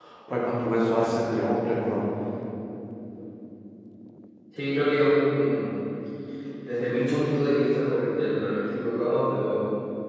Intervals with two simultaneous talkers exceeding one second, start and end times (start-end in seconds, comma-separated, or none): none